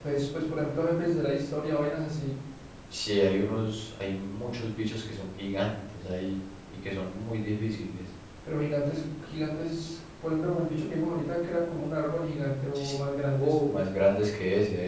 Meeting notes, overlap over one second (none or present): none